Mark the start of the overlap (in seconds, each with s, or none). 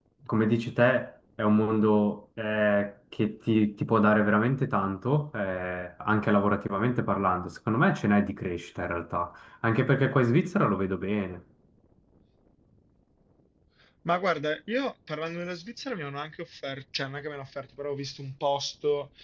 none